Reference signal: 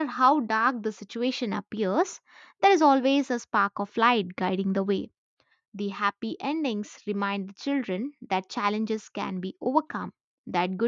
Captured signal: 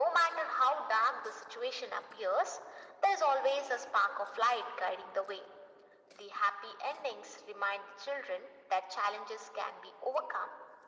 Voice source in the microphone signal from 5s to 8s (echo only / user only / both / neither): echo only